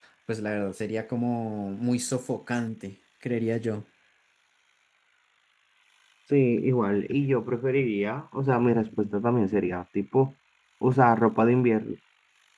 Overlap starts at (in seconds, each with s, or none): none